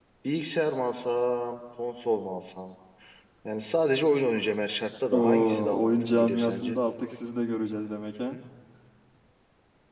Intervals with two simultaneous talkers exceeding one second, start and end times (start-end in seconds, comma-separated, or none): 5.1-6.8